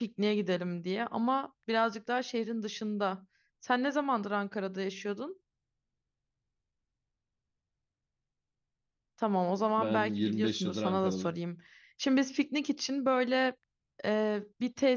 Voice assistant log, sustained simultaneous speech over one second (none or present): present